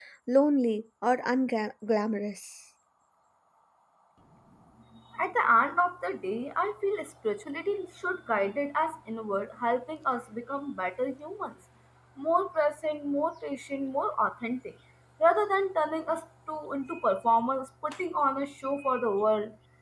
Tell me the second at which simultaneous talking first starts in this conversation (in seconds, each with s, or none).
none